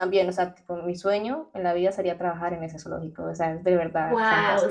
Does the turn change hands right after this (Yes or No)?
Yes